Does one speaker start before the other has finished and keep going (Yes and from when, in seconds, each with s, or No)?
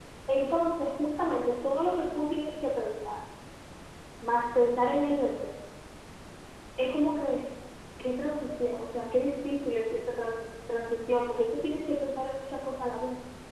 No